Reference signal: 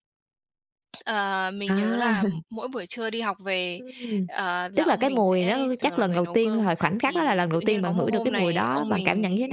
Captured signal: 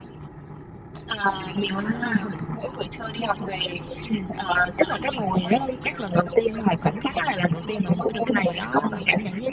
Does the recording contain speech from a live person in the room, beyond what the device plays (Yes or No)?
No